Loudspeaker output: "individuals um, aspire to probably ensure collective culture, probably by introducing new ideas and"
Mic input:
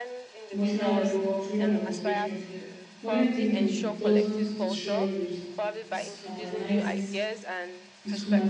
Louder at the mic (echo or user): user